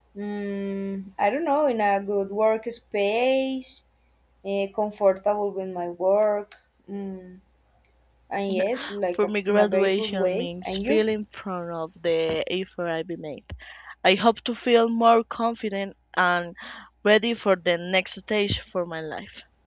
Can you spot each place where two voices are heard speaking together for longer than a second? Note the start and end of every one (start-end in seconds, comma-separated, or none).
9.1-11.0